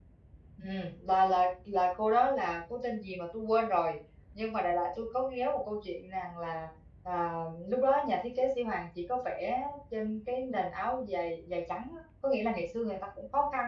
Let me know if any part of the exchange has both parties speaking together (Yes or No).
No